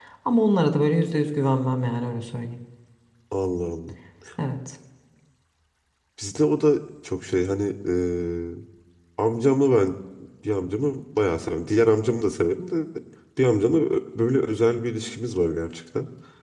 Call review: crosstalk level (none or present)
none